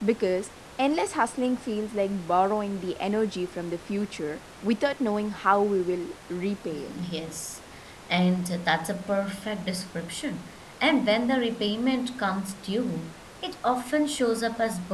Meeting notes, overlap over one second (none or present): none